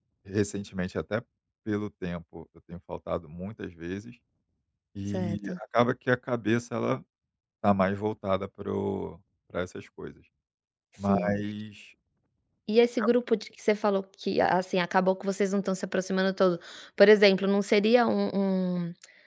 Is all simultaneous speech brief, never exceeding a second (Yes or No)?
Yes